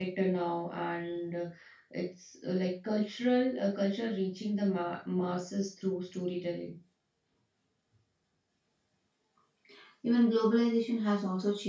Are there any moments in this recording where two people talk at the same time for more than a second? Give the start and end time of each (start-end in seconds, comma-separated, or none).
none